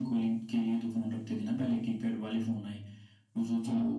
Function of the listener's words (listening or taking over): listening